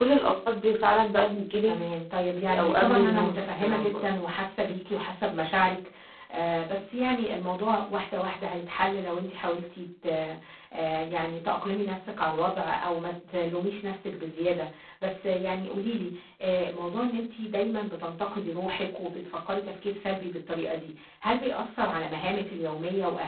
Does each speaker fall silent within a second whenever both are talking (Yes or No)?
No